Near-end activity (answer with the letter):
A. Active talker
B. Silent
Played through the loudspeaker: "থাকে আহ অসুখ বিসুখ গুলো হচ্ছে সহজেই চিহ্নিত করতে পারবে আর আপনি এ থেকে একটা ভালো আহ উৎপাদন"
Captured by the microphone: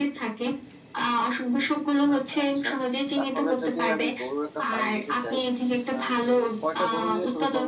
A